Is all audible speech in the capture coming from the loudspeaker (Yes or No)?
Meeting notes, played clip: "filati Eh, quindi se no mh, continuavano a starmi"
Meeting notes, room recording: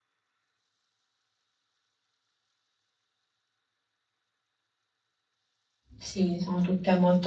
No